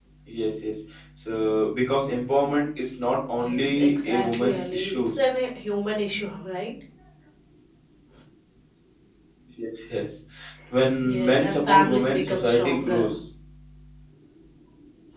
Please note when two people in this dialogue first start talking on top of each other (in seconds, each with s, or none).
3.4 s